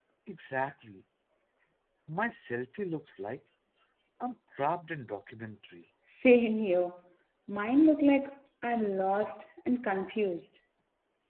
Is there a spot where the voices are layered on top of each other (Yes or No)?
No